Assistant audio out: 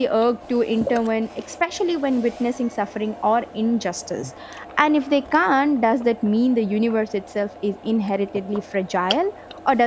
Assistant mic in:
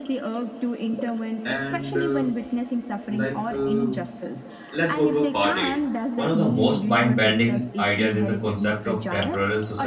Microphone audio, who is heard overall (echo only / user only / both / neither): both